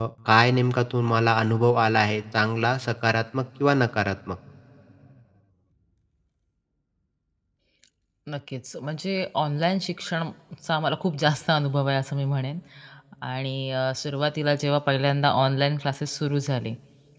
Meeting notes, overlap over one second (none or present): none